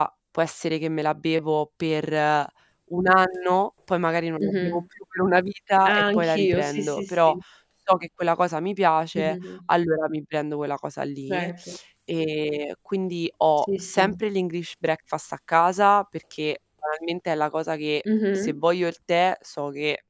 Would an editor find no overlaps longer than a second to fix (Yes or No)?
No